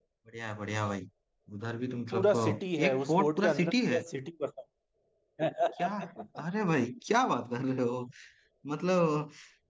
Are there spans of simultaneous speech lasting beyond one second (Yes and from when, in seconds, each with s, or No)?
Yes, from 2.1 s